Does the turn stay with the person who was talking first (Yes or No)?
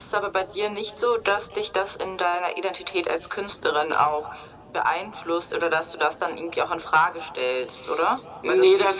No